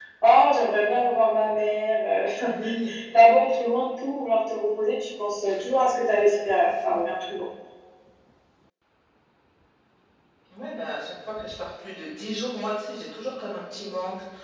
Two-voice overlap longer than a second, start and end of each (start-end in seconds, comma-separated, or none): none